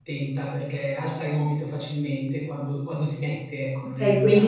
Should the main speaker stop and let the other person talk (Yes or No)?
Yes